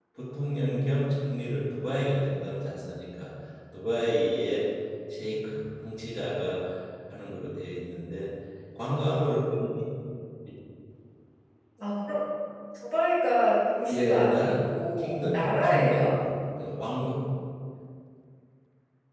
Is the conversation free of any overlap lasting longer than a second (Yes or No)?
No